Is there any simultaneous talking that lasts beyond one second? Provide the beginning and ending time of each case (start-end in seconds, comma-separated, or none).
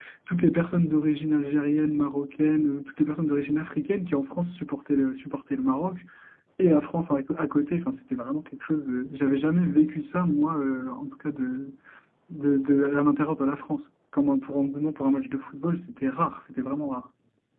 none